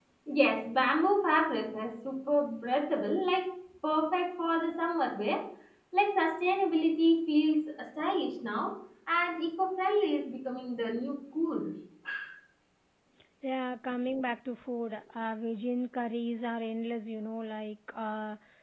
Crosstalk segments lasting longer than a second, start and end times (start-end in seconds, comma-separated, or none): none